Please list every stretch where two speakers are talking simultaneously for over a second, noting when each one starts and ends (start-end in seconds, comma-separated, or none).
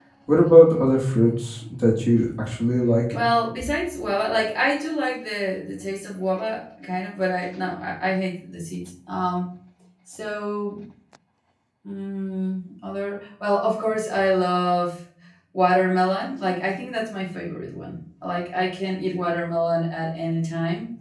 none